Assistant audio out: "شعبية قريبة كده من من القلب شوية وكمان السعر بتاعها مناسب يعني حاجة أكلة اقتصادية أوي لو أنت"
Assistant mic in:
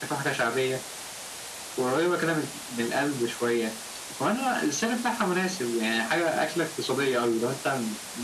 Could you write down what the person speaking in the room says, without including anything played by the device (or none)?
none